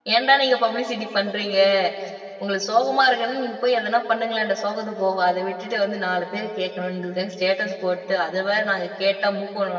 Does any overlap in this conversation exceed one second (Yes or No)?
No